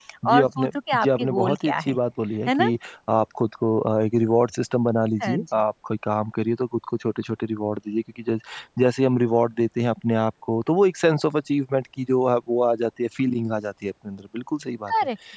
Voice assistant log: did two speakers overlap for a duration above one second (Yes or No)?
Yes